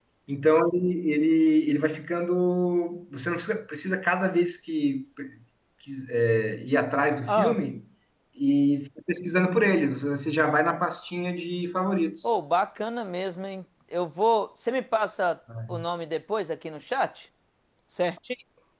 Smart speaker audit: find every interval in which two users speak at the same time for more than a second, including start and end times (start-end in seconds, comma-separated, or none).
none